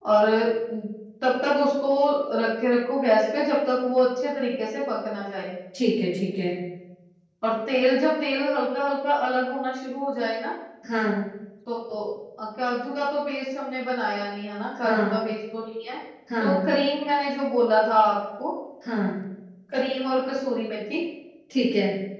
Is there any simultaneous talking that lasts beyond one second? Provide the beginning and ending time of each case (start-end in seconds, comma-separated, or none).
none